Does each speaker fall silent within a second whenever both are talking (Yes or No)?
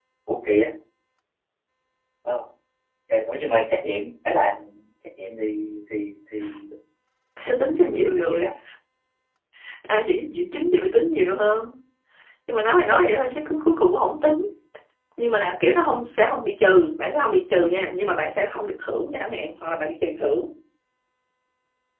Yes